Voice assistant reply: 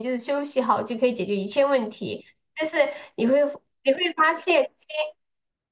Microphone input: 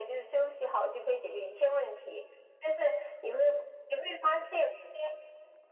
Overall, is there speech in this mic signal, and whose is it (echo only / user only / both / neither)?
echo only